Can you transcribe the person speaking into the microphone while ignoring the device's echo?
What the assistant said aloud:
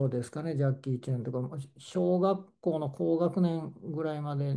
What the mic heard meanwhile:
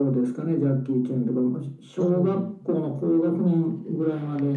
うん、

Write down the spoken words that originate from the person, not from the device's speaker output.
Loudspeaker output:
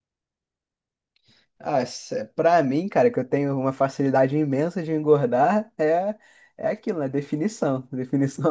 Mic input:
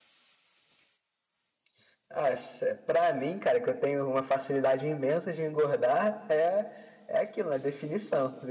none

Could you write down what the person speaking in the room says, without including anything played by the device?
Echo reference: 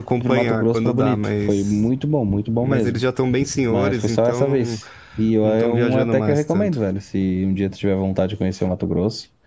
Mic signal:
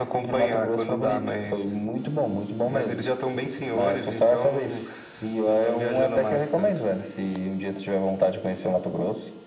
none

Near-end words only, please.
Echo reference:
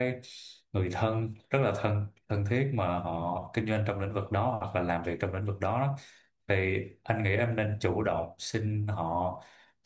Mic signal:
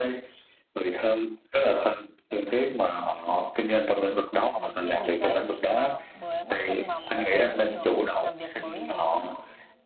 lời khuyên gì cho em khi mà vừa bước chân vào một cái môi trường làm việc mới như thế không ạ?

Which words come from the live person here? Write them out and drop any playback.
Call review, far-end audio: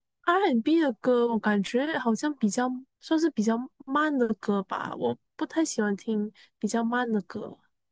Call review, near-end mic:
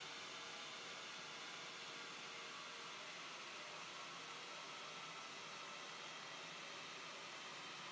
none

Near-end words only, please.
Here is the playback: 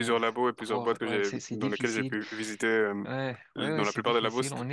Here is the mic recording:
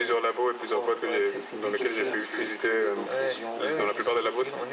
de faire ce que, ce que les autres régions font aussi.

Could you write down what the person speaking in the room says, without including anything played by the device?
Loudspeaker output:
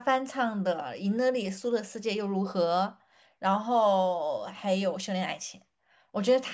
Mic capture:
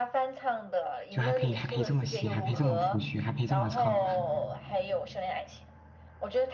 就还可以还可以这么写，还可以这么谱曲，还可以这么唱，

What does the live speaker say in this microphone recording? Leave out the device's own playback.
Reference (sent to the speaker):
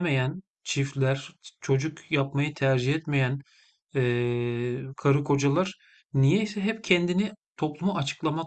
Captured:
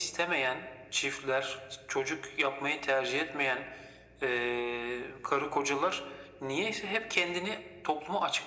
none

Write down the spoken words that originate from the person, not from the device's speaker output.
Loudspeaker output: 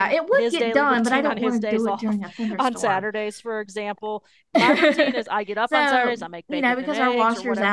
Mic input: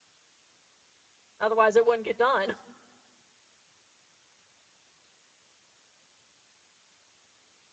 Otherwise, it wouldn't get done.

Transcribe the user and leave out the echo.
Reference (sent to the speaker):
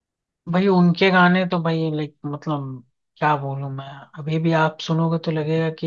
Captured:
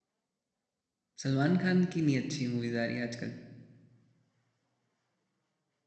सलमान खान की नहीं अच्छी मूवीज आ रही आजकल

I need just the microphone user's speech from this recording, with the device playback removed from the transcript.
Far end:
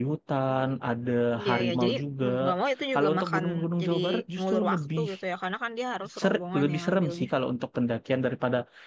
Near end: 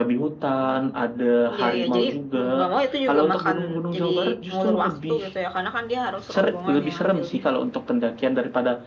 none

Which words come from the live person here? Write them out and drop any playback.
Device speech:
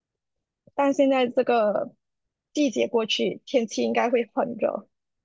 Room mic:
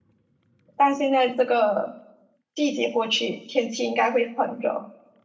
none

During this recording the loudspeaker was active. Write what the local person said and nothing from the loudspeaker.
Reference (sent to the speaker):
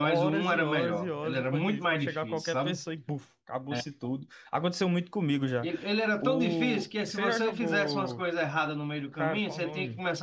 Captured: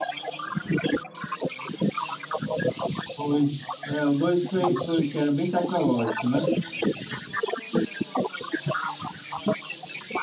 2. É, o dois foi, foi que era bem tecnológico, né?

